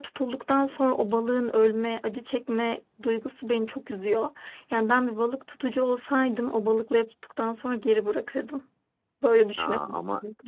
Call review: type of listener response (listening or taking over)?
taking over